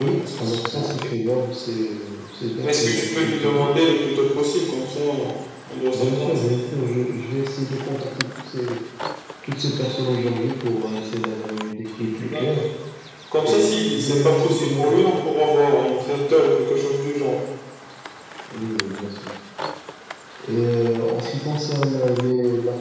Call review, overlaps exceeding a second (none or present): present